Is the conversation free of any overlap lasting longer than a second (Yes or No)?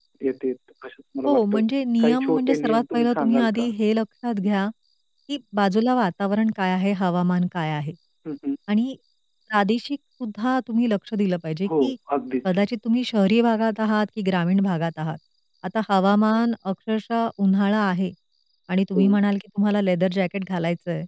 No